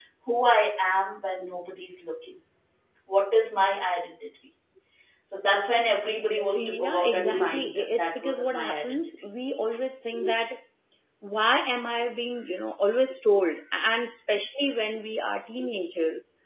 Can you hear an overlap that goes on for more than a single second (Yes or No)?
Yes